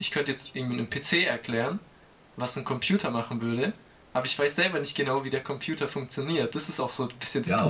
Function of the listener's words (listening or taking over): taking over